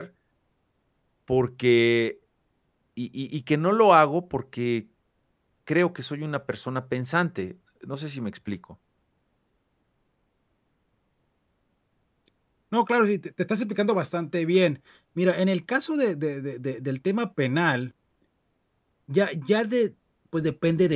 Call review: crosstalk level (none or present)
none